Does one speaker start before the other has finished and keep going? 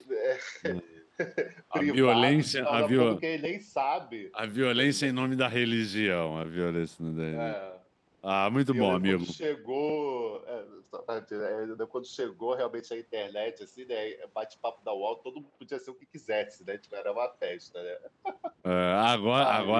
Yes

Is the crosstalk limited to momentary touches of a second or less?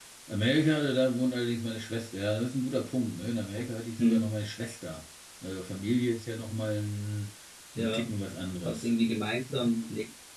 Yes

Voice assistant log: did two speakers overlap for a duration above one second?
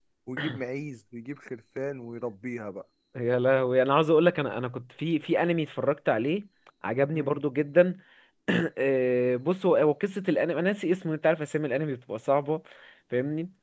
No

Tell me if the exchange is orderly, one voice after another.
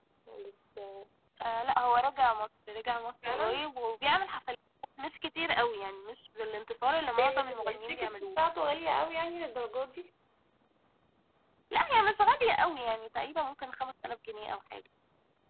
No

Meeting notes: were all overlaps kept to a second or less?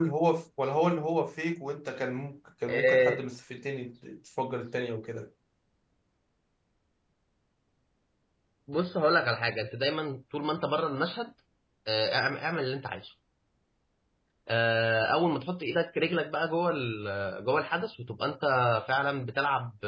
Yes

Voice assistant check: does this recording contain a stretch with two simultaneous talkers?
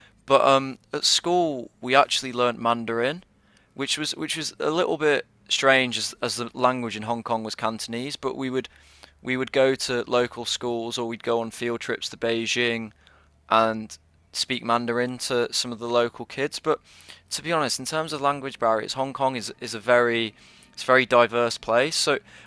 No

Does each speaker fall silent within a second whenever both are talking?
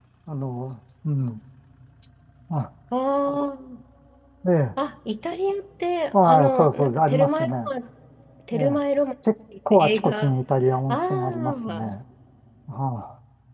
No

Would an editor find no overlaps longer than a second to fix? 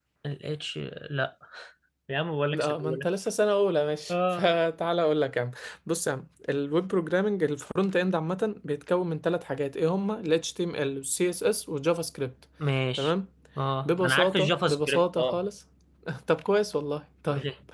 No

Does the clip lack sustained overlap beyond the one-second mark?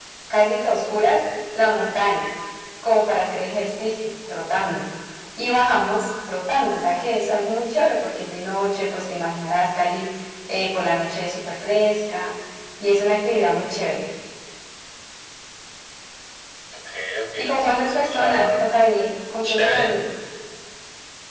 No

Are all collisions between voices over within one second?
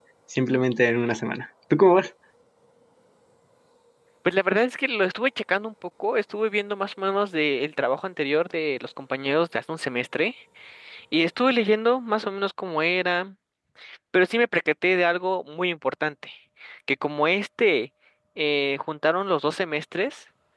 Yes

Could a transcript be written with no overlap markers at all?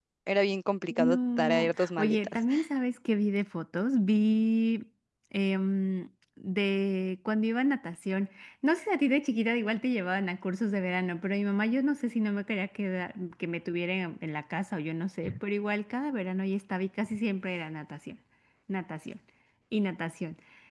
No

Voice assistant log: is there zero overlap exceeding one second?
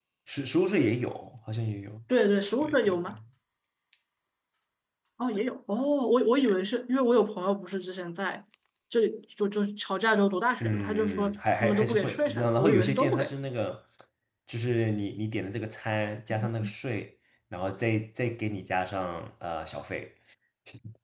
No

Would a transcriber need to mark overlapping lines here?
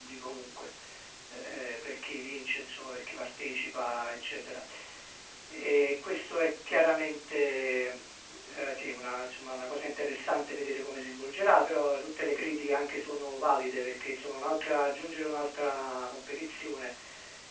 No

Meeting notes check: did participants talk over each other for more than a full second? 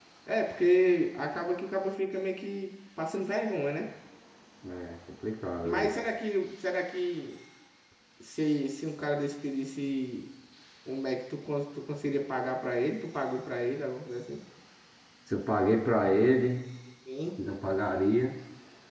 No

